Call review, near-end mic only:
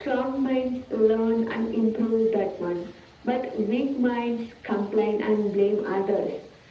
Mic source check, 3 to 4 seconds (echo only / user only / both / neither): echo only